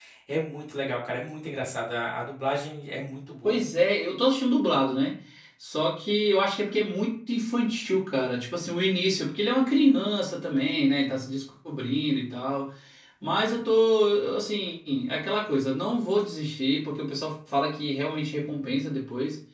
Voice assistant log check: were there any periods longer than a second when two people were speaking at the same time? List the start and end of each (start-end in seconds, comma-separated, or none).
none